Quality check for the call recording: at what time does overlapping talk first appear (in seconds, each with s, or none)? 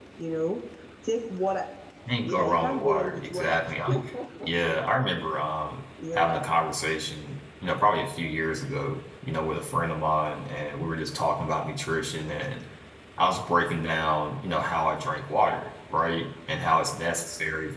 2.2 s